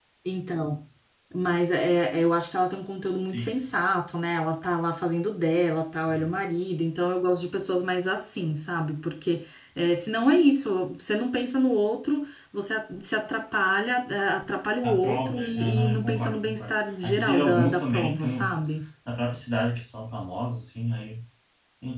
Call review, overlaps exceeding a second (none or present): present